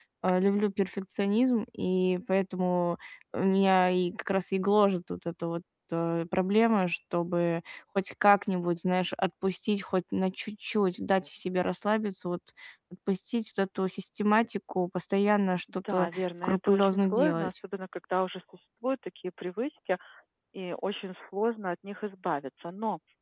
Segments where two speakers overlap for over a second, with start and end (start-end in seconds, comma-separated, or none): 15.9-17.5